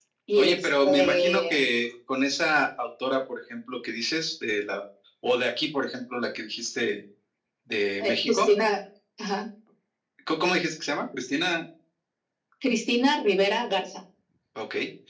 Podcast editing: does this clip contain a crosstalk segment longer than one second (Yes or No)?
Yes